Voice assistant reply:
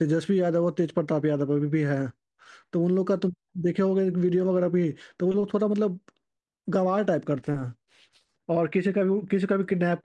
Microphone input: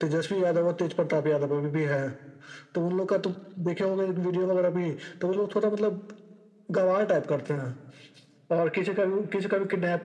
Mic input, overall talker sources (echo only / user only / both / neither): echo only